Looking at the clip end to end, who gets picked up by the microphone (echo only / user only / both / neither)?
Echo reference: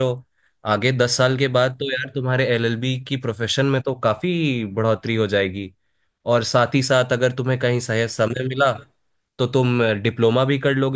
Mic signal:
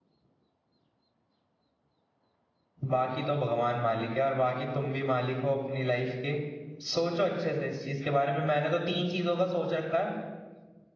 user only